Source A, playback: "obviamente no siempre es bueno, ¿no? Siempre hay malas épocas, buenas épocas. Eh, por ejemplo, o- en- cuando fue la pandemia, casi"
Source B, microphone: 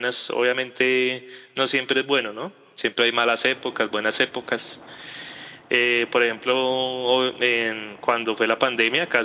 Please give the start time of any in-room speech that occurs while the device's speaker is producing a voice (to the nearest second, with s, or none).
none